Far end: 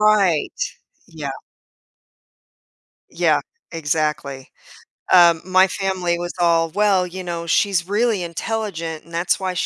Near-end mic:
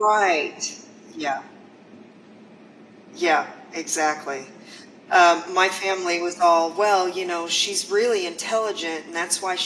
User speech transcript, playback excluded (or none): none